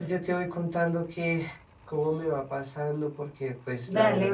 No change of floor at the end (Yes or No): No